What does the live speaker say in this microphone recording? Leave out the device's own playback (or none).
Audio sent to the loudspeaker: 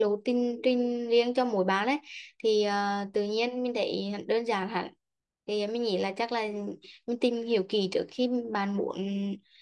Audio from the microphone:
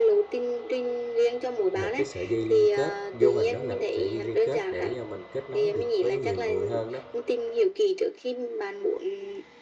một cái sợi dây liên kết vô hình đó là một sợi dây liên kết để mình kết nối được với nhiều người hơn đó